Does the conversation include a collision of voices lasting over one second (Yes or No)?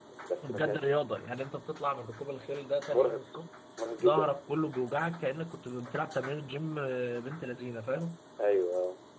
No